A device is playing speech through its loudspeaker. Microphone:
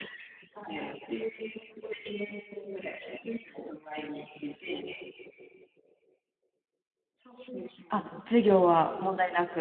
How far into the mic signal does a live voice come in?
7.9 s

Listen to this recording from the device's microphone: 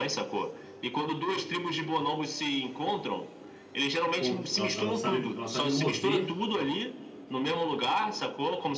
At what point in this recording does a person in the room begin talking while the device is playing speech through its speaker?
4.1 s

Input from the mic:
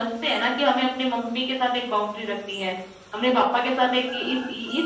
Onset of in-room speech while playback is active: none

